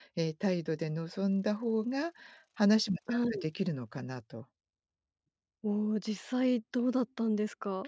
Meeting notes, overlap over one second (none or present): none